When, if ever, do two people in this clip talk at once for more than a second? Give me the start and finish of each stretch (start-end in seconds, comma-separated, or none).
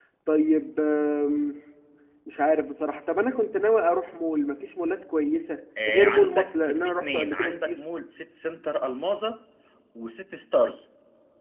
5.9-7.8